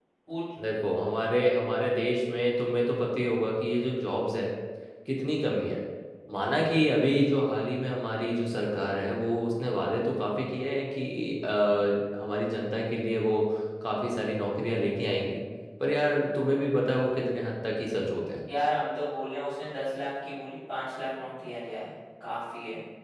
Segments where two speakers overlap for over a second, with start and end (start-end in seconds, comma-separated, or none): none